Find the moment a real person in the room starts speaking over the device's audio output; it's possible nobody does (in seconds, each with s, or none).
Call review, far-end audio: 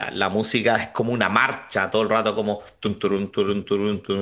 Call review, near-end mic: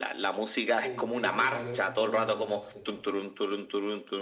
0.8 s